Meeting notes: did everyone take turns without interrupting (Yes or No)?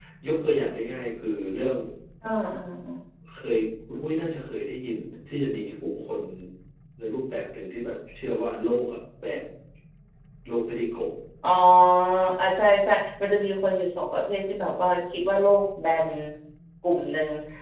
Yes